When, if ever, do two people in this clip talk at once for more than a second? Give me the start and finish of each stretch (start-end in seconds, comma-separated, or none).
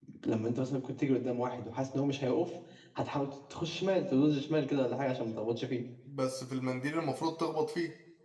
none